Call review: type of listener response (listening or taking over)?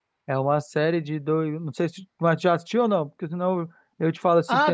taking over